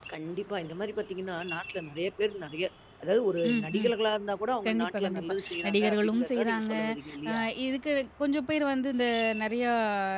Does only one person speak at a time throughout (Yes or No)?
No